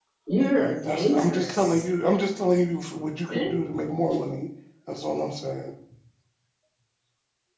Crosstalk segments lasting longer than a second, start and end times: 0.6-1.9

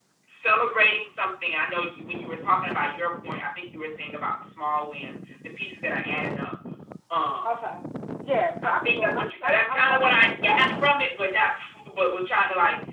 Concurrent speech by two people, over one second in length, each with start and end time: 8.6-10.2

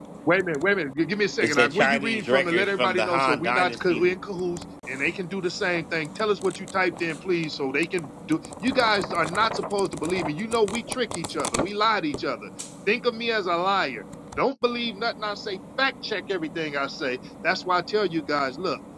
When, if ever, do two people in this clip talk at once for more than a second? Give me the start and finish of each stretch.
1.4-4.1

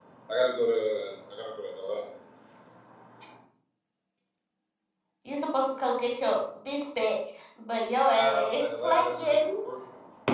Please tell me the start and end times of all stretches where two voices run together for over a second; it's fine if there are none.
8.1-9.6

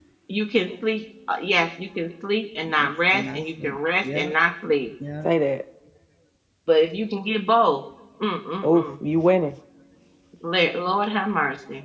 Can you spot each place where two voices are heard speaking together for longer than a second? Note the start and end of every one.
2.8-4.3

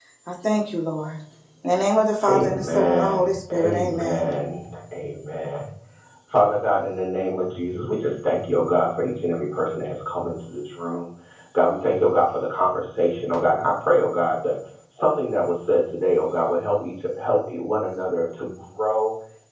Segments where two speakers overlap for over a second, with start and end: 2.3-4.3

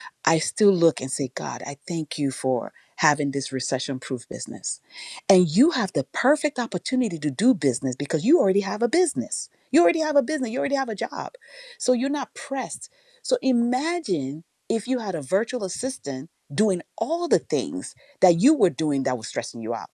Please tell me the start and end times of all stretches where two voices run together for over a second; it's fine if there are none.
none

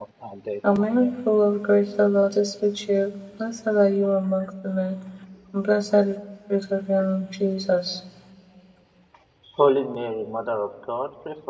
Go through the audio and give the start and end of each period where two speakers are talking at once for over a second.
none

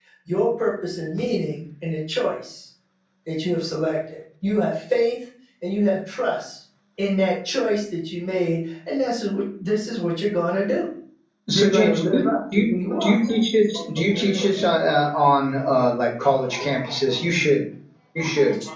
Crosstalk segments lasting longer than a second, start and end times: 11.5-13.2

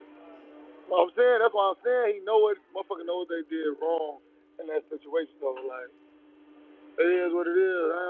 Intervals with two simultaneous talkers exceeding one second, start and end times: none

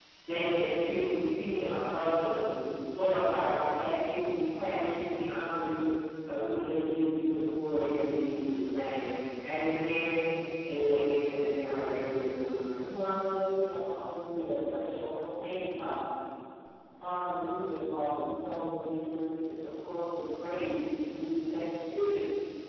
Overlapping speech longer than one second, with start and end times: none

